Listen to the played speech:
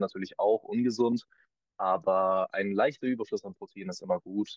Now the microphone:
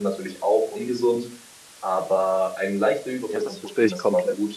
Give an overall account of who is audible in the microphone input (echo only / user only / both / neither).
both